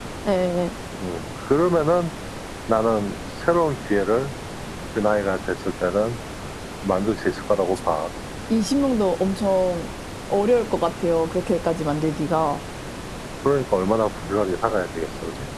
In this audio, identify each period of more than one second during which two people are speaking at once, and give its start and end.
none

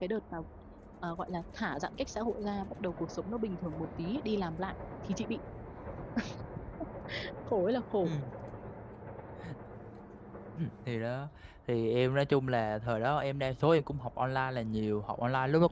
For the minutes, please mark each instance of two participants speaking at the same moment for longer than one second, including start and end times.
none

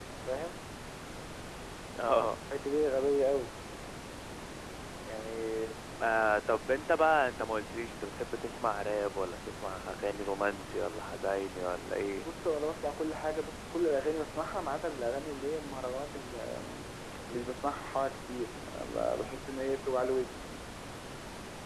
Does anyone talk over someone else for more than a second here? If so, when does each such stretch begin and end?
none

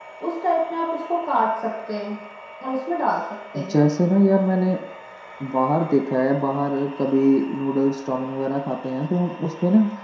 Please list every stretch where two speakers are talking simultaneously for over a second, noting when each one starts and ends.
none

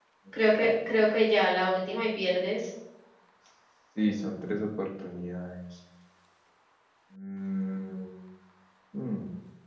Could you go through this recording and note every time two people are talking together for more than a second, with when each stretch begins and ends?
none

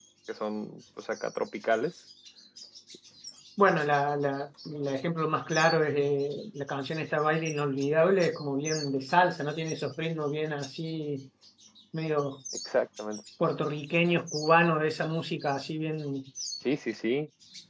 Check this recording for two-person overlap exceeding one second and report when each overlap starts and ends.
none

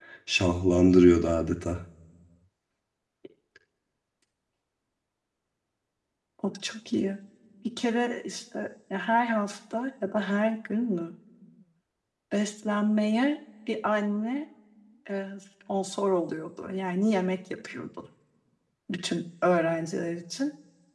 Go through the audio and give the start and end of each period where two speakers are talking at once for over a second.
none

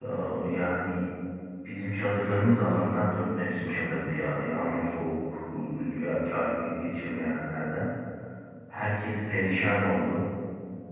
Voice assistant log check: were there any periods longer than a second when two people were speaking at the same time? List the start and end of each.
none

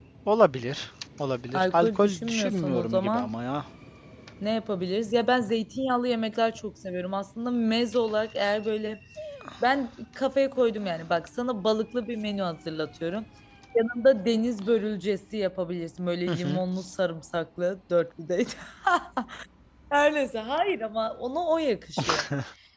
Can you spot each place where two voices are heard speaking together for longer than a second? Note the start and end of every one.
1.5-3.3

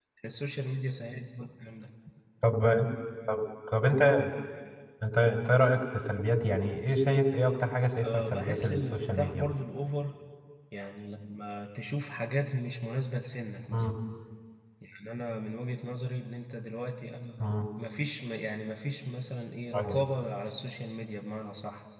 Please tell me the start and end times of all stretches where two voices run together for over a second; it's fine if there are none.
8.0-9.5

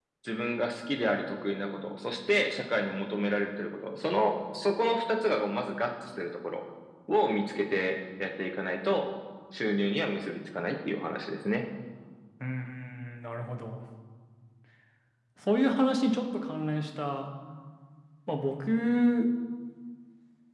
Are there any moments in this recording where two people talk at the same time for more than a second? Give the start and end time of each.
none

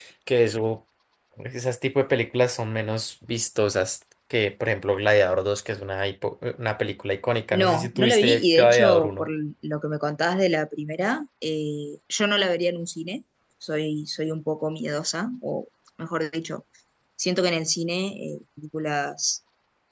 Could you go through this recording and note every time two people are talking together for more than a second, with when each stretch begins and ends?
7.5-9.3

